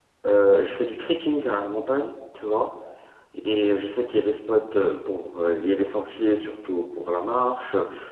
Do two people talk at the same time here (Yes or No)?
No